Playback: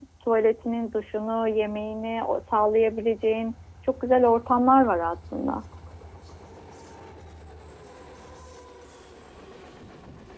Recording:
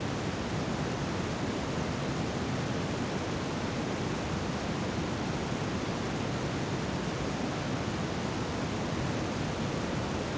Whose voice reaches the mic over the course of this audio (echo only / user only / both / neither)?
neither